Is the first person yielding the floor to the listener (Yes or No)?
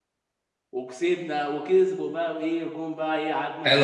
Yes